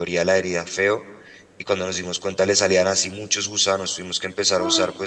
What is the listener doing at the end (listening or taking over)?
listening